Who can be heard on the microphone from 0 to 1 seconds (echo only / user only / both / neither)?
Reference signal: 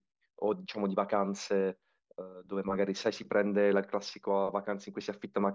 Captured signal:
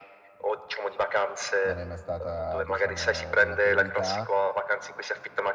echo only